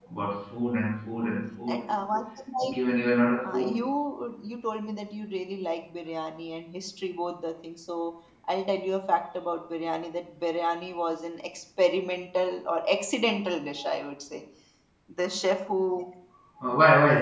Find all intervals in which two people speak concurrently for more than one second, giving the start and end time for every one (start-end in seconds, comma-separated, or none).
none